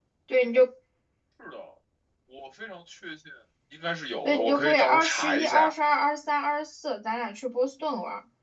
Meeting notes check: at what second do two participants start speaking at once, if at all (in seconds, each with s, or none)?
4.2 s